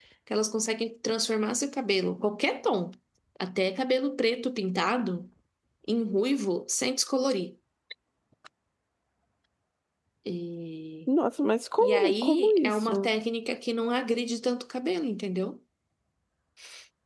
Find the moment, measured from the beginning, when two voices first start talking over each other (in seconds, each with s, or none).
11.8 s